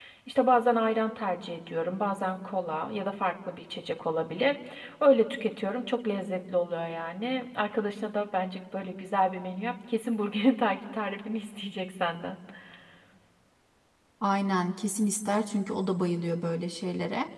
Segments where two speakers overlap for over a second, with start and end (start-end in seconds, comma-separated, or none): none